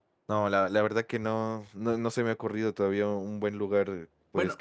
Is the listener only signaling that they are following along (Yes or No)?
No